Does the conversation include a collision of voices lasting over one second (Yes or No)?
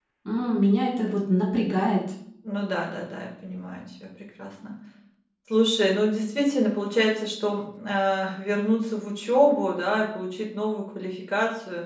No